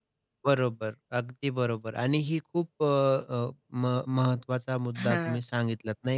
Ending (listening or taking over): listening